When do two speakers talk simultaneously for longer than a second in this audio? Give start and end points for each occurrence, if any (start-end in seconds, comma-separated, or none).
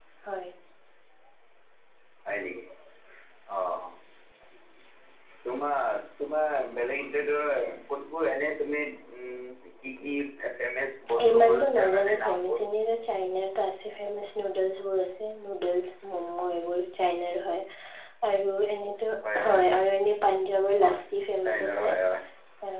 11.3-12.6